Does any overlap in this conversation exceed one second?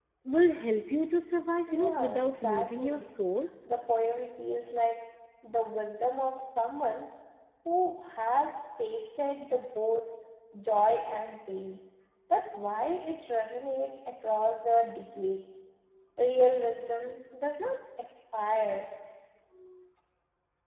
Yes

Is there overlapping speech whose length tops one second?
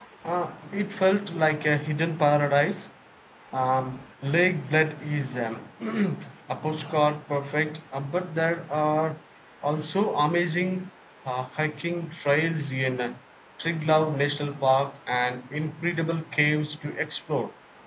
No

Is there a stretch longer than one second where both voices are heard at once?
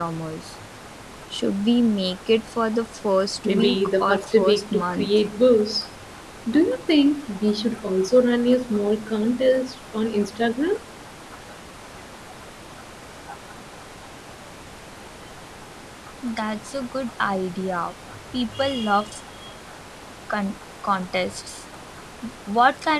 Yes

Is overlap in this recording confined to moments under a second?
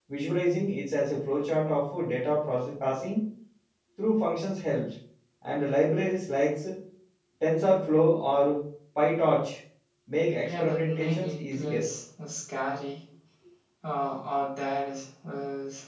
No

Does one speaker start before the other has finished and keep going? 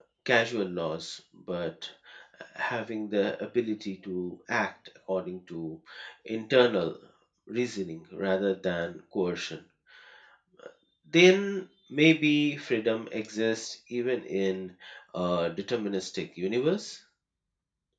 No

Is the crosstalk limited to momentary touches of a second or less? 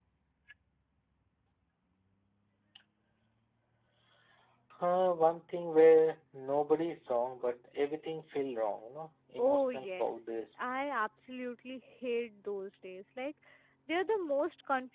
No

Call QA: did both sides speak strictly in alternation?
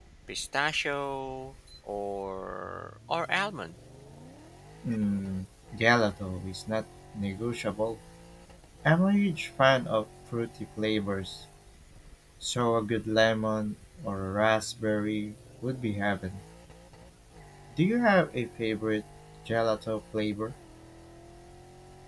Yes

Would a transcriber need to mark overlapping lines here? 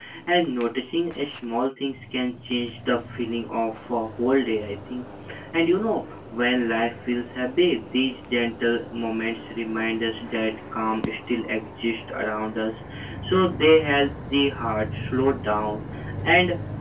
No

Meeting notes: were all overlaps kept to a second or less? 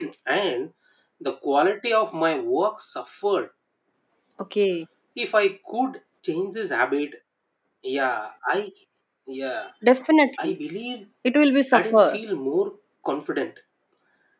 Yes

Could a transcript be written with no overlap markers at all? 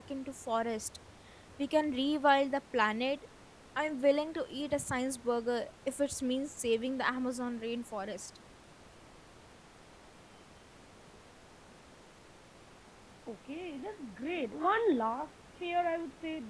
Yes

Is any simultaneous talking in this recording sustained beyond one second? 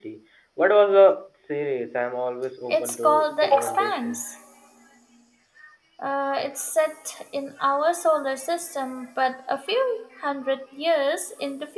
Yes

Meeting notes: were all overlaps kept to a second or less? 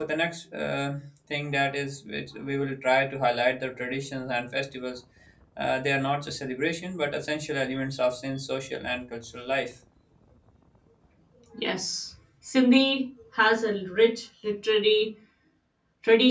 Yes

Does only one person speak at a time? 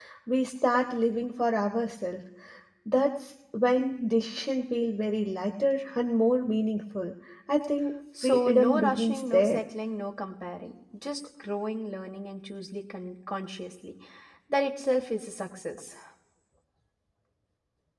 No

